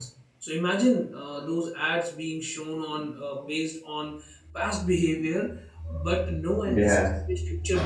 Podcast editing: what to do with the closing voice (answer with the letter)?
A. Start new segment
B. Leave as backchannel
B